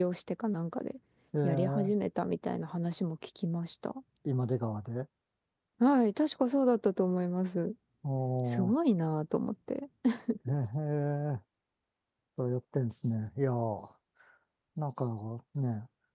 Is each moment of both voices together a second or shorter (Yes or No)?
Yes